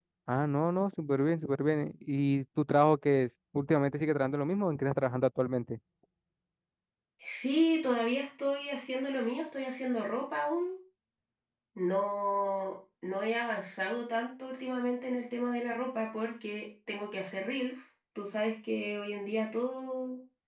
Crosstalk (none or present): none